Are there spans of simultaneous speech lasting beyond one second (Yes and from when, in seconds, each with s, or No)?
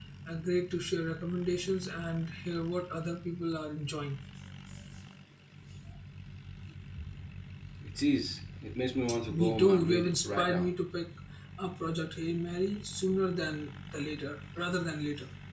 Yes, from 9.3 s